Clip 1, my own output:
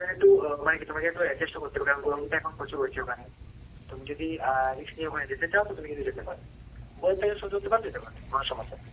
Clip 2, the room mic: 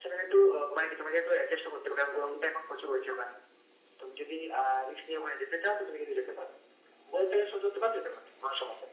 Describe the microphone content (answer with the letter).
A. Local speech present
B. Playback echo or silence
B